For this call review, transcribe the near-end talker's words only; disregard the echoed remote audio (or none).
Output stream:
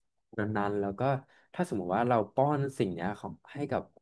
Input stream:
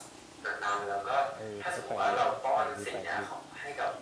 อ่าเออแต่ก็แปลกดีแปลกดีแปลกดี